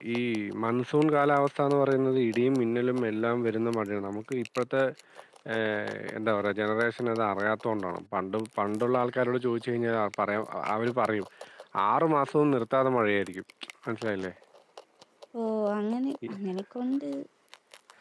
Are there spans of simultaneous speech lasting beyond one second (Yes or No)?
No